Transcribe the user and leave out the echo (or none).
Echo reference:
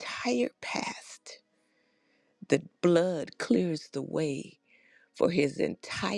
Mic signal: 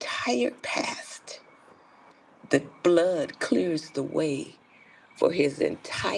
none